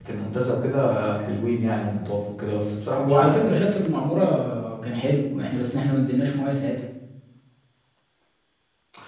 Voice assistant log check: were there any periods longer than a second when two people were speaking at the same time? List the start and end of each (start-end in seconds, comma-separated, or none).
none